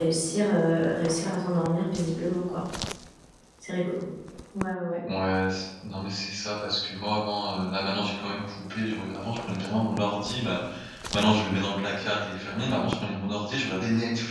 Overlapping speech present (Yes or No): No